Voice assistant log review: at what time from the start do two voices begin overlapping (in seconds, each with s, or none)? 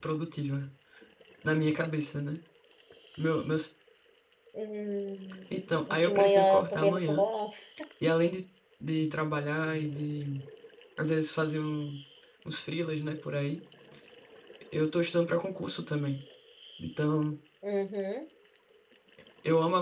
6.0 s